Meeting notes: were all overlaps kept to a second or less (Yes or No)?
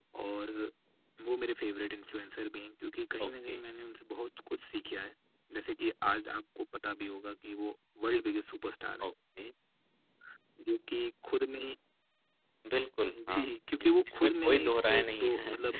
No